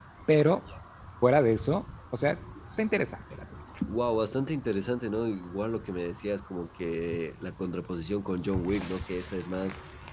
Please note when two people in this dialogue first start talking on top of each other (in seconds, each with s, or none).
none